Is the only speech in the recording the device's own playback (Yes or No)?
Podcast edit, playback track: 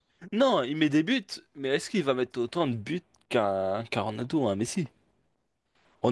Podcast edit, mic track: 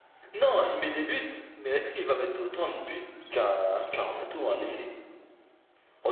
Yes